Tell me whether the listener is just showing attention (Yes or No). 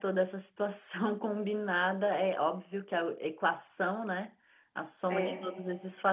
Yes